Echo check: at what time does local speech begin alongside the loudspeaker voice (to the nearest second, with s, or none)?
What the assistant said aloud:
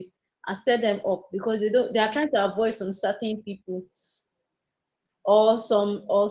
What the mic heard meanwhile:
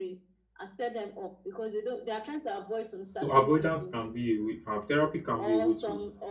3 s